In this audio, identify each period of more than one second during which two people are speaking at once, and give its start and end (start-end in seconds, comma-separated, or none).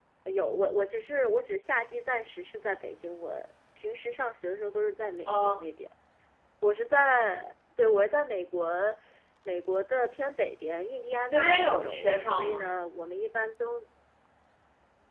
11.3-12.7